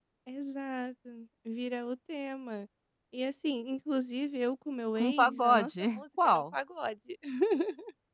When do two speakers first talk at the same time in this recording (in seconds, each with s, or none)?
5.0 s